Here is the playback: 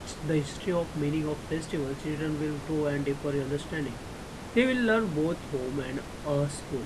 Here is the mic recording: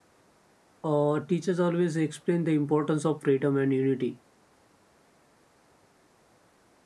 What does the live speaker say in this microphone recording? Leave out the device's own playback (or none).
Uh, teachers always explain the importance of freedom and unity.